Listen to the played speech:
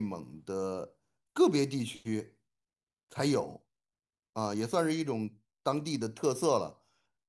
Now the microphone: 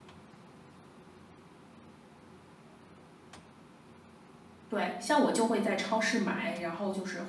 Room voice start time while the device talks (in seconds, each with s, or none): 4.7 s